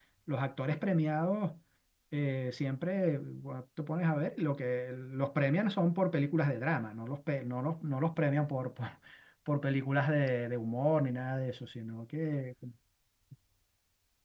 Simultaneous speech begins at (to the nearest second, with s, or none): none